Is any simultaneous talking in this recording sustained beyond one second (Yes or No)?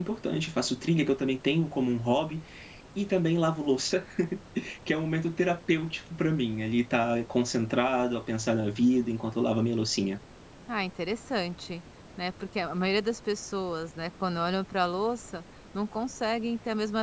No